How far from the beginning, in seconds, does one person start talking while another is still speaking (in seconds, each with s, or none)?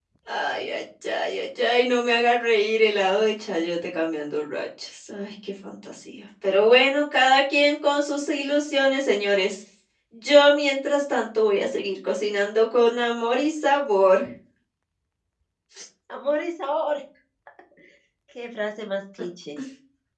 none